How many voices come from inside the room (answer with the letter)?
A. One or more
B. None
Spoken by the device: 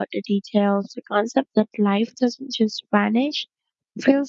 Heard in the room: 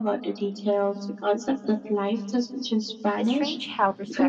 A